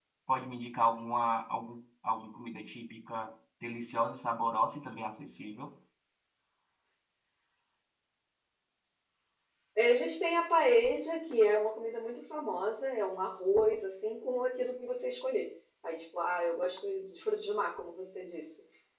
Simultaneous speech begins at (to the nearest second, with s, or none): none